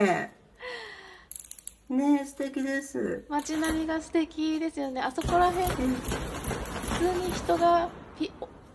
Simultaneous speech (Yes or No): No